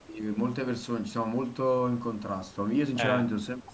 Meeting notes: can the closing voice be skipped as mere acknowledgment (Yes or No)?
Yes